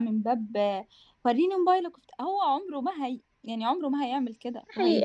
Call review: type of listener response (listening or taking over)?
taking over